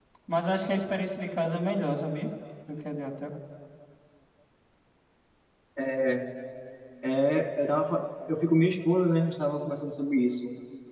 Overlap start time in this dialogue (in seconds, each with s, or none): none